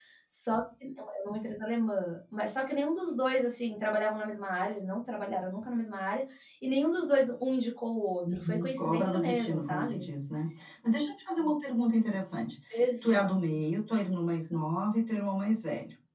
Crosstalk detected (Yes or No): Yes